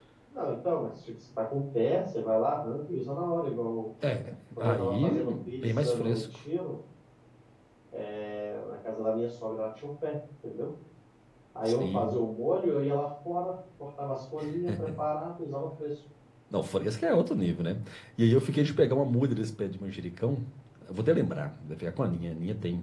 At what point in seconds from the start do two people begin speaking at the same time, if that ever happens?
4.6 s

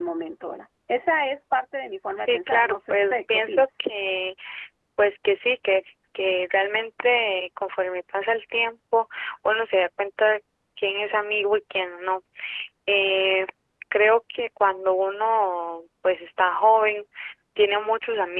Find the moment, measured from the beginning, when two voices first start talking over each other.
2.1 s

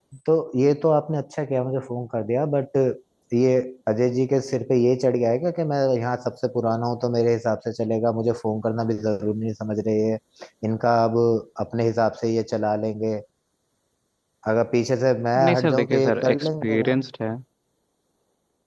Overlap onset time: 15.3 s

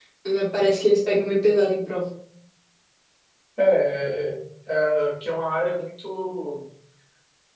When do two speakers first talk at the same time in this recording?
none

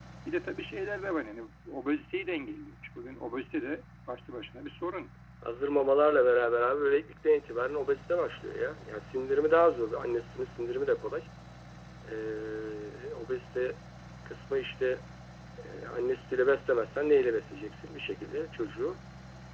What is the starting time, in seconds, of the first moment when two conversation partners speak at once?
none

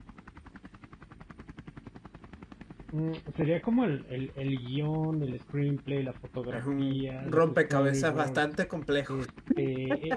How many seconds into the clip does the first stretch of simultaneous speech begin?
6.5 s

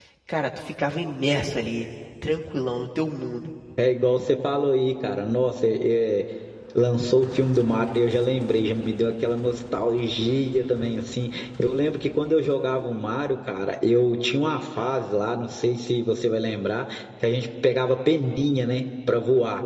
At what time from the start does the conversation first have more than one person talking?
none

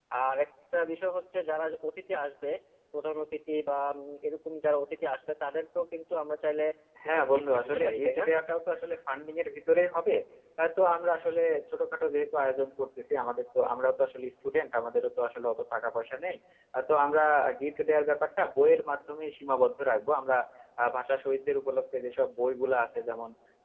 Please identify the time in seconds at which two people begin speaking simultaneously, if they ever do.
7.0 s

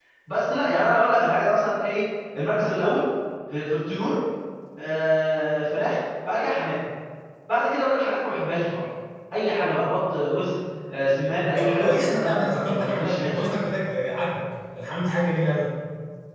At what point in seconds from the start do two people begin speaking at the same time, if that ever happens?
11.6 s

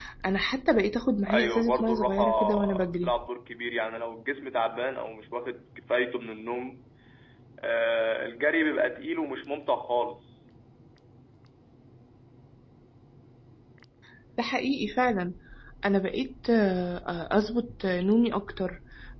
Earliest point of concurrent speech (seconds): 1.3 s

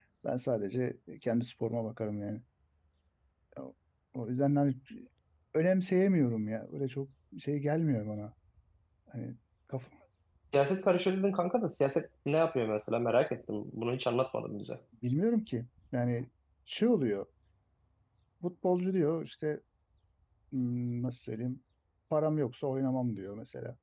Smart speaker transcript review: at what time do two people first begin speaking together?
none

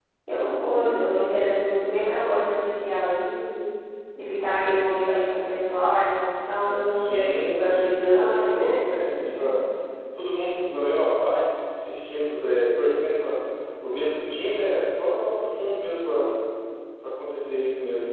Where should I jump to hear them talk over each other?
6.9 s

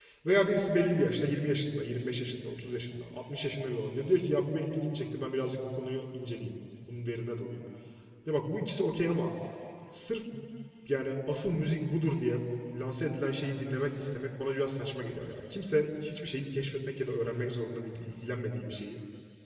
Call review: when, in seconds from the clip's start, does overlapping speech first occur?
none

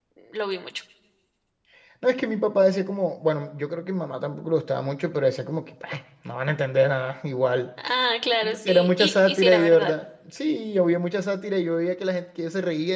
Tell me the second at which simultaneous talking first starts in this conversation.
8.4 s

